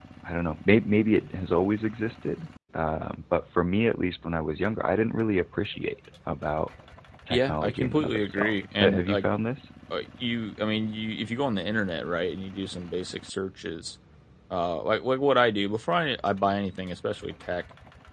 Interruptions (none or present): present